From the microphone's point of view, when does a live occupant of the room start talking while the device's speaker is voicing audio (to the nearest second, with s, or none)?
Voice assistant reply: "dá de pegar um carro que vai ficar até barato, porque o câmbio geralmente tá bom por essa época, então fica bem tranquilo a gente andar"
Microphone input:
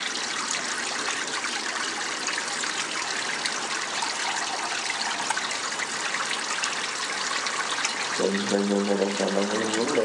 8 s